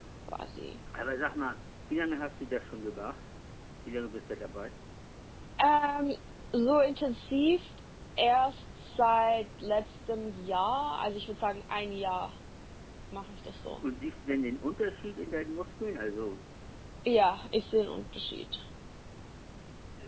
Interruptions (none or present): none